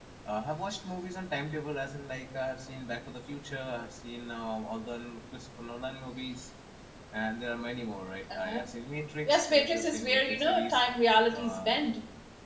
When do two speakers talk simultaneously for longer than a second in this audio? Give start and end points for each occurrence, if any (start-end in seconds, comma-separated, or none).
9.3-10.8